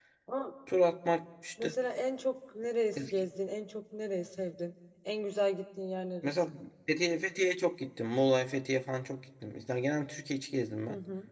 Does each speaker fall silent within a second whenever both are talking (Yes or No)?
Yes